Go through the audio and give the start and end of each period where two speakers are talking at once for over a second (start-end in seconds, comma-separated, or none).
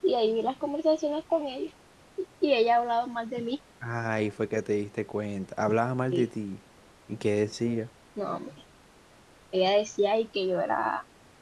none